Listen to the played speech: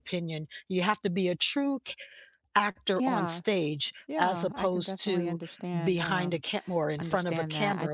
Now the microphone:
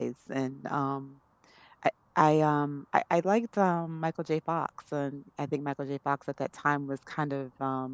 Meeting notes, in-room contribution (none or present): present